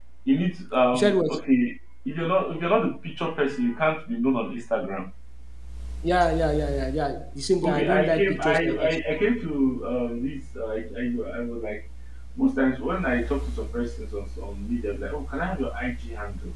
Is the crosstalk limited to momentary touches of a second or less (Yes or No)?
No